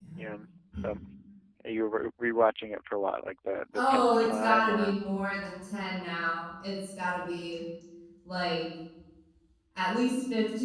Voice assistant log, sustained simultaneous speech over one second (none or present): present